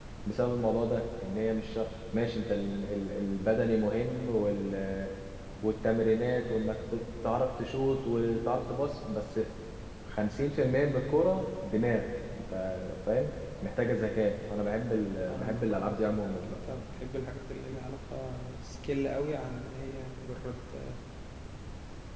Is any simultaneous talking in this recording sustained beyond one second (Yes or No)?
Yes